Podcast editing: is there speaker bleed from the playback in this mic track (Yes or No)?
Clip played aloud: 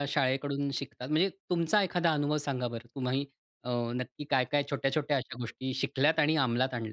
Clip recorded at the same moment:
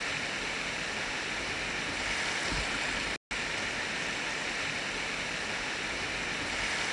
No